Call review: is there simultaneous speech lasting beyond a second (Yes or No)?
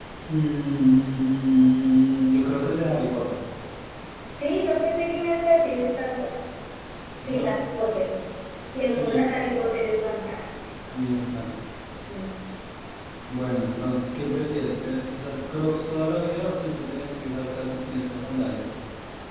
No